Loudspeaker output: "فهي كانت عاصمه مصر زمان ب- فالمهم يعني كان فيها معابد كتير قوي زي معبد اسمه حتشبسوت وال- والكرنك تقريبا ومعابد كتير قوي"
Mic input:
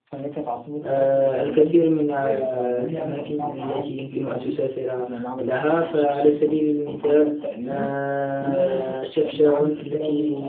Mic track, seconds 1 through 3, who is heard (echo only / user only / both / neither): both